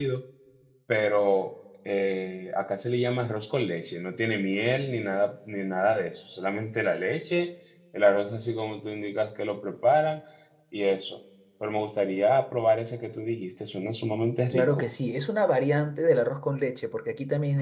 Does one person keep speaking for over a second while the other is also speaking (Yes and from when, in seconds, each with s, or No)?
No